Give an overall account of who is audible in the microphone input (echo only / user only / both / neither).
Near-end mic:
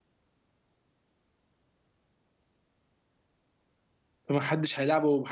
user only